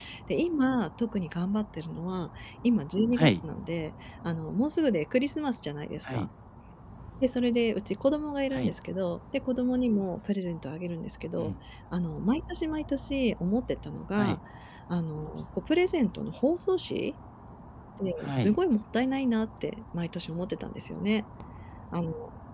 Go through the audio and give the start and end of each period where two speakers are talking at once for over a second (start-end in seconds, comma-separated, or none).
none